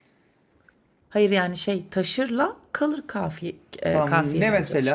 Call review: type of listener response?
taking over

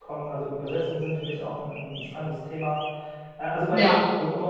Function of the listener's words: listening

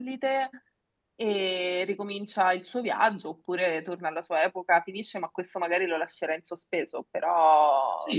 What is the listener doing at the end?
taking over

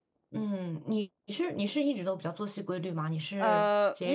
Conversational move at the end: taking over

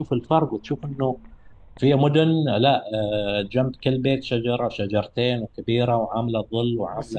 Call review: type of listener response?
taking over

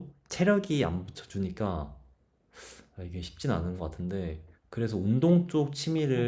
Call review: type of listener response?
listening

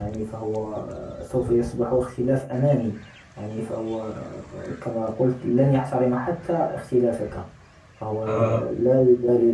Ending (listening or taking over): listening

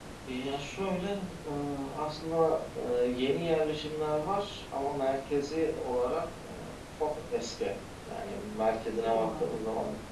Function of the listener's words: listening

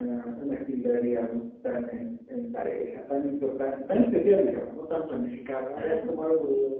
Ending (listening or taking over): listening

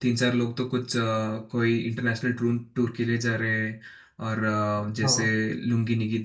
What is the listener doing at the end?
listening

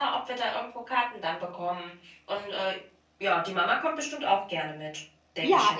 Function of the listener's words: taking over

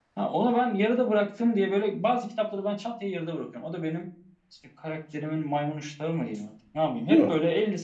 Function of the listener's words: listening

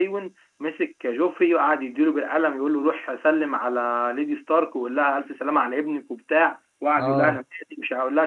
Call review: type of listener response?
listening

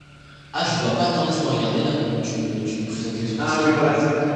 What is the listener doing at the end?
taking over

